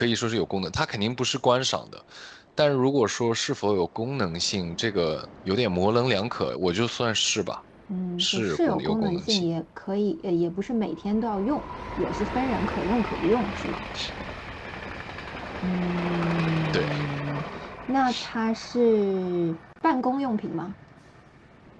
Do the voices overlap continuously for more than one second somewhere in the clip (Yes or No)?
Yes